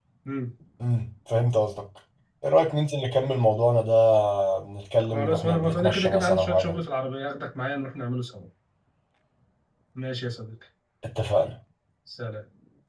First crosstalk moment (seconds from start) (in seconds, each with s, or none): 5.0 s